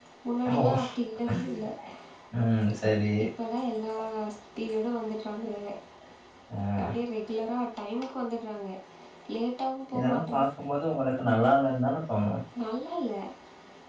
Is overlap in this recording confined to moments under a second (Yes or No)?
Yes